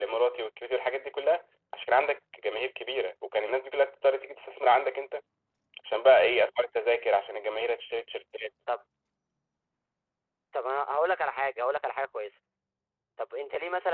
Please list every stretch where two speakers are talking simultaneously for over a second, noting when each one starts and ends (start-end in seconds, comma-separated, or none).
none